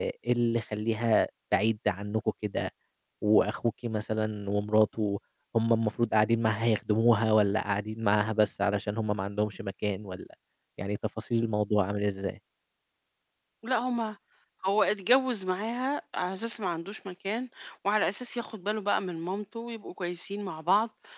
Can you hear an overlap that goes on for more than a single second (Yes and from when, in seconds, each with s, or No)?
No